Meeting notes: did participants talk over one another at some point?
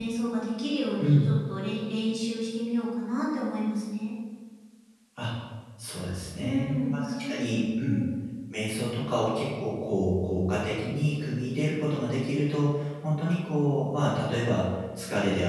Yes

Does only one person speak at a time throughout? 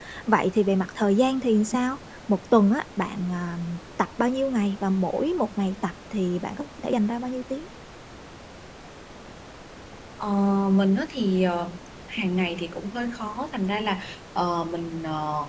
Yes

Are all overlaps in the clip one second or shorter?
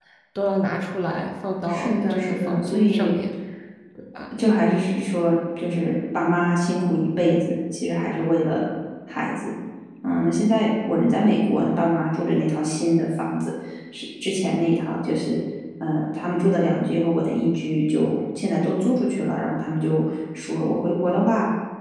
No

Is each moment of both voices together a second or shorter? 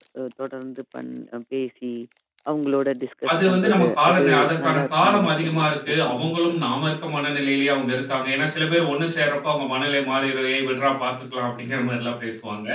No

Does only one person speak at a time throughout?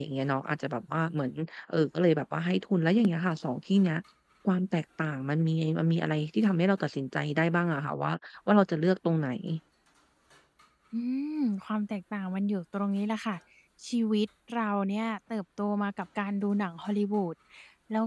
Yes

